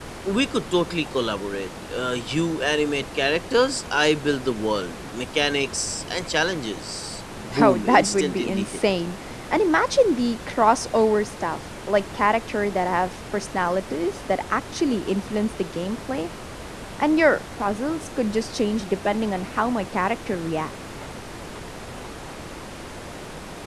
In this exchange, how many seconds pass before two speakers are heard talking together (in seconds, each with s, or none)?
7.6 s